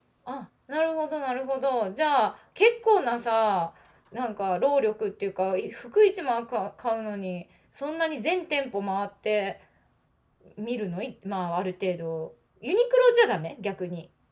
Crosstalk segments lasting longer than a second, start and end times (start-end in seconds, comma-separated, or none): none